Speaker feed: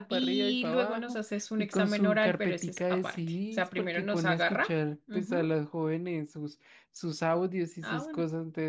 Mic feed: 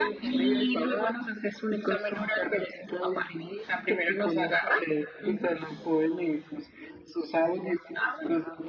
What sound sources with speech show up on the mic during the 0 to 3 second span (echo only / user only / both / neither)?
echo only